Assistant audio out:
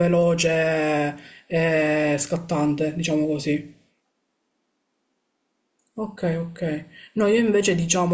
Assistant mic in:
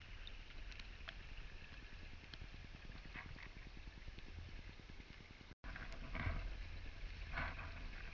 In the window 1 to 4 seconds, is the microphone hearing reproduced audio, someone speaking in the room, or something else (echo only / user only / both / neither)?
neither